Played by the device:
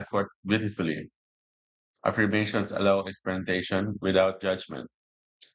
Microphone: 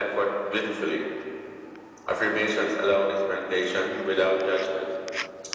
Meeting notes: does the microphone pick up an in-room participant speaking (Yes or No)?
No